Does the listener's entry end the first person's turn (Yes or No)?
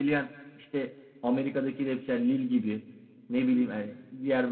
No